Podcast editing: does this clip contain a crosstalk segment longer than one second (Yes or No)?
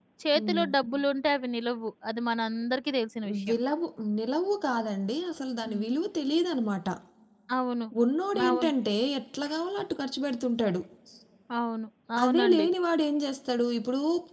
No